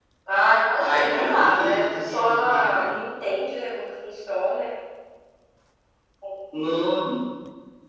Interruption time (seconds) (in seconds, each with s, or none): 0.8 s